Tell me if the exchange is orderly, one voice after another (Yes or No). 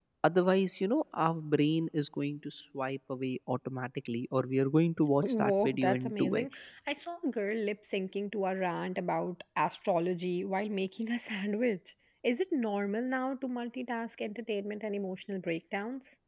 No